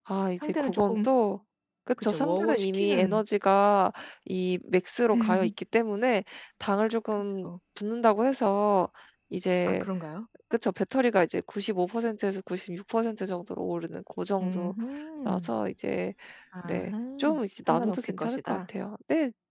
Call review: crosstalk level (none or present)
present